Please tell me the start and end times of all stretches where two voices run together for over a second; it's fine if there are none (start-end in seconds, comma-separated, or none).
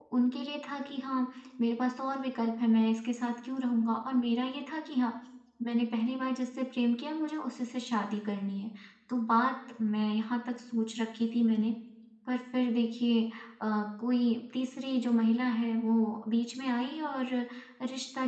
none